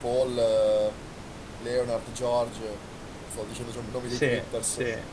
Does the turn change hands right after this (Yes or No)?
Yes